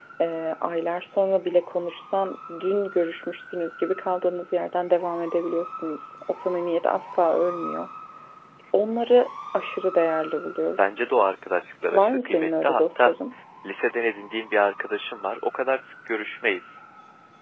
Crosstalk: present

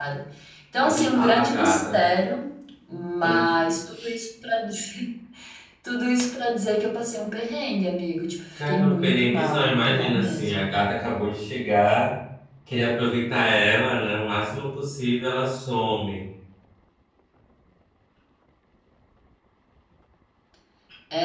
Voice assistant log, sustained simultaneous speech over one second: present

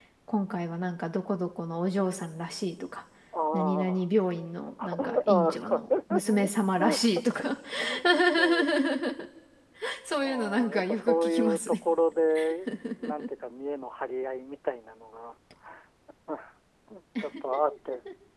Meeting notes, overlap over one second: present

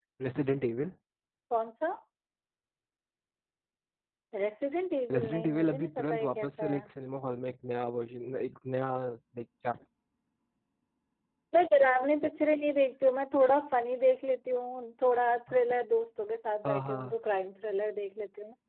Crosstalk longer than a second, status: present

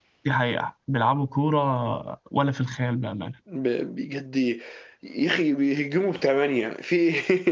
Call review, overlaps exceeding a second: none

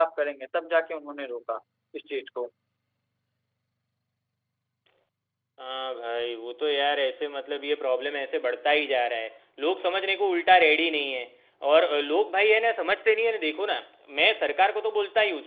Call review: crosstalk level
none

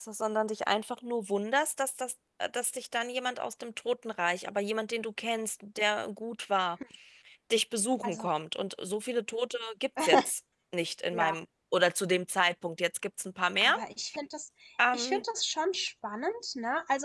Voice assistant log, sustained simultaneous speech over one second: none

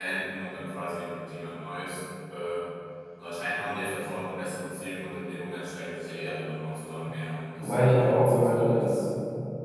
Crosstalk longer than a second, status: present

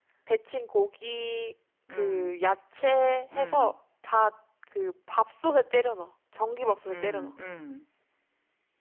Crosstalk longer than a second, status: none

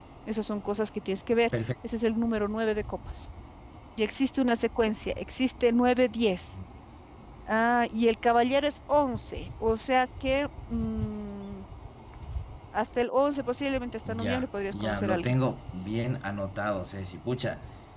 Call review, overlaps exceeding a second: present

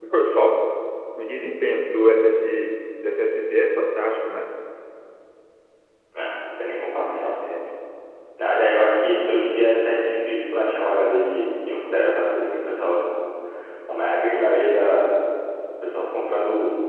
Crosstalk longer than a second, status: none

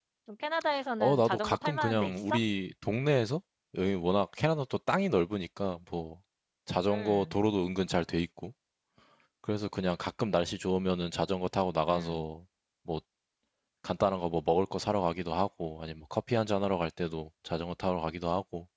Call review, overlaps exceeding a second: present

